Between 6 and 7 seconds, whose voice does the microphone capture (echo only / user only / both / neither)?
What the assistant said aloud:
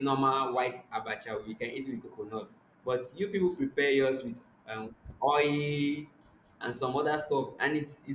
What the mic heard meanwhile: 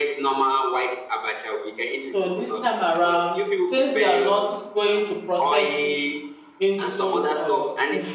both